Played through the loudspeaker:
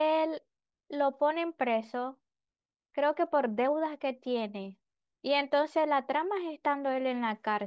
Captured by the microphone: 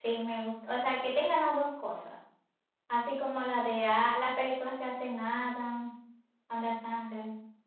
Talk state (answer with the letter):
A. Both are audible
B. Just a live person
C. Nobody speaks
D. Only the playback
B